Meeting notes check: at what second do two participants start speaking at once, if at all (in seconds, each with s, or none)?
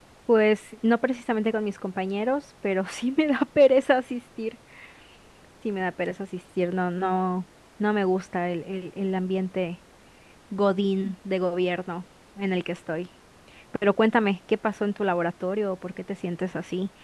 none